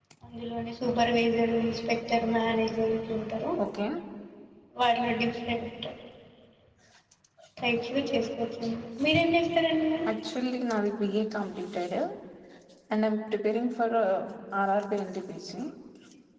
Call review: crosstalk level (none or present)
none